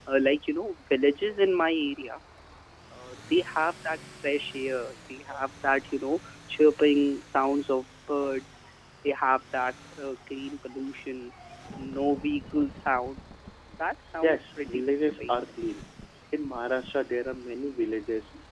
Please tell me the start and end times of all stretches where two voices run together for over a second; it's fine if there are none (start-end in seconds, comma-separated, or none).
14.2-15.5